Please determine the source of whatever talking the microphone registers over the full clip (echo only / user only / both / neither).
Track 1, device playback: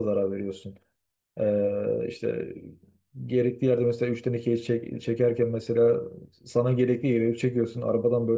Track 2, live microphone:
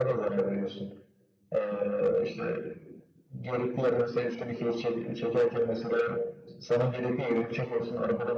echo only